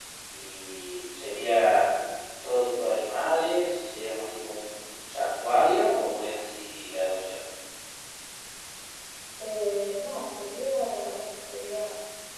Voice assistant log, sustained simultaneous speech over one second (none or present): none